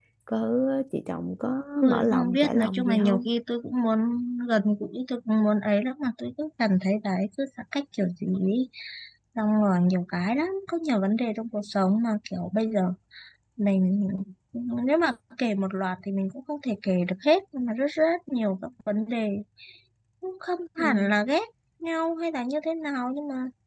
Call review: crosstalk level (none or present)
present